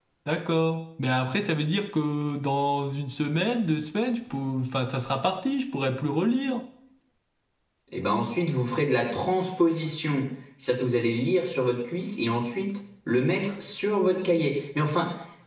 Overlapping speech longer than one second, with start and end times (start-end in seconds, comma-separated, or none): none